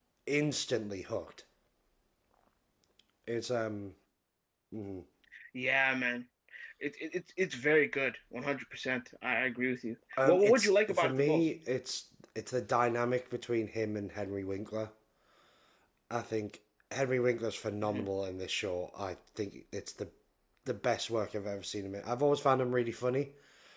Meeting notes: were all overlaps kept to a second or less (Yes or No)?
No